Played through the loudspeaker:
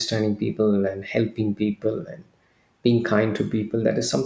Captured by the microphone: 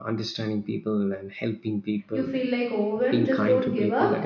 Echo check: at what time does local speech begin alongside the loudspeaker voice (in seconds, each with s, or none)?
2.1 s